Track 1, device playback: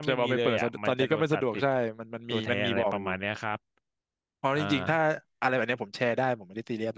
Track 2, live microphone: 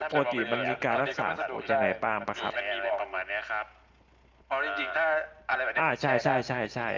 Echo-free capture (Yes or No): No